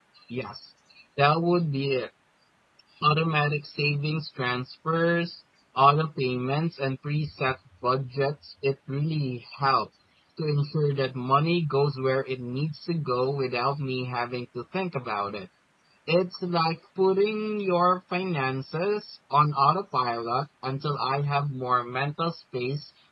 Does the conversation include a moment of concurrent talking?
No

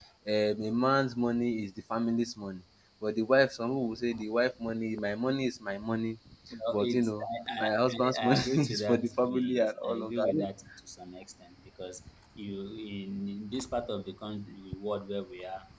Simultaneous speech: Yes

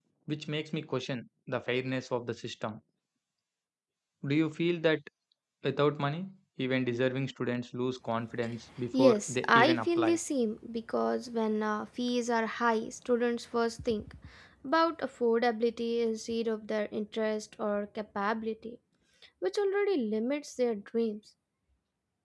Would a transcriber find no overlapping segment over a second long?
No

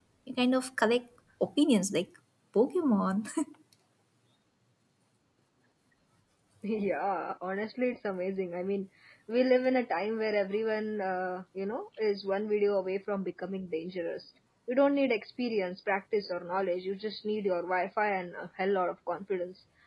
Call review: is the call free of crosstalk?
Yes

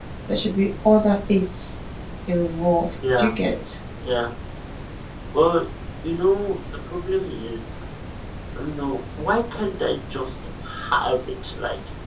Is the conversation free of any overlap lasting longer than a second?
Yes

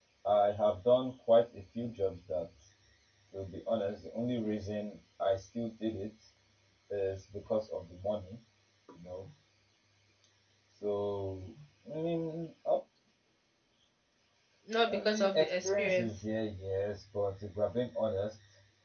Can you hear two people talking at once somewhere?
Yes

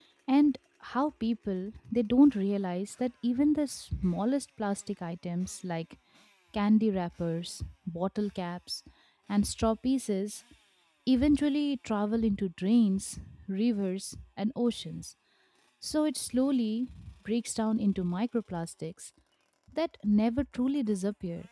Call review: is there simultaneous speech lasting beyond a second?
No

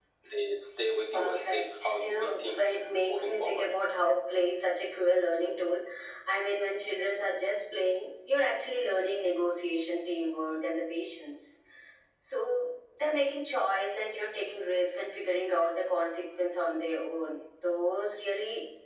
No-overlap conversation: No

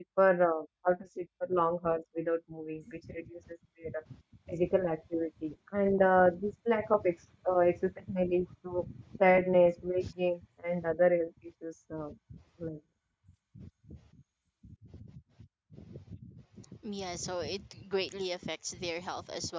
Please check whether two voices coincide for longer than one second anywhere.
No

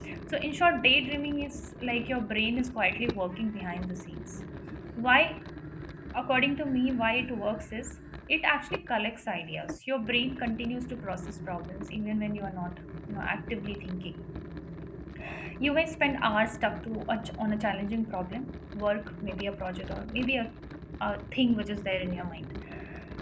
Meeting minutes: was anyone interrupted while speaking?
No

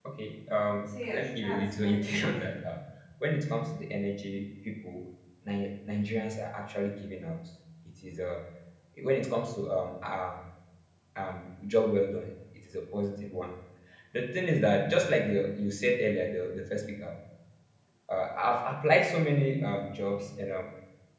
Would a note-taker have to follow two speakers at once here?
Yes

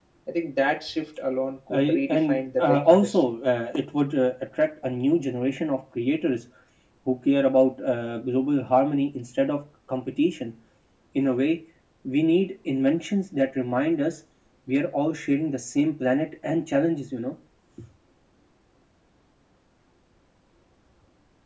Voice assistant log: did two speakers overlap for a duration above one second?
Yes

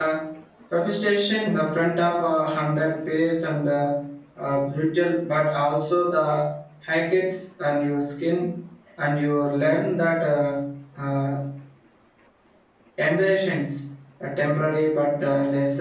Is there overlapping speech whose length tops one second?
No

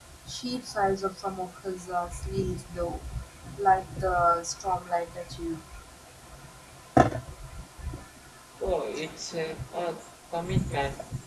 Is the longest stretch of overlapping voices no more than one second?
Yes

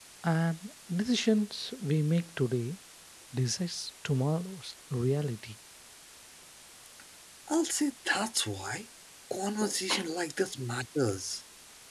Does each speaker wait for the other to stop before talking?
Yes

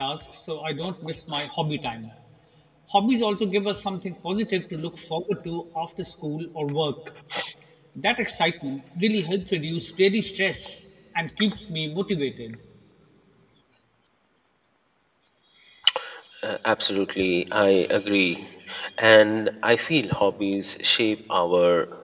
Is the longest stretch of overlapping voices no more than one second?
Yes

